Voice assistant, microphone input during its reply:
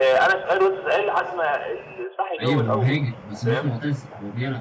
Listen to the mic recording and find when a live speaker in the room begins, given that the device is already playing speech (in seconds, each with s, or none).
2.4 s